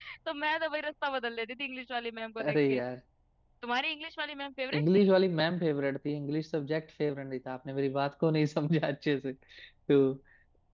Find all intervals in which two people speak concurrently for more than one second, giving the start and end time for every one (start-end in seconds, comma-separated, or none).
none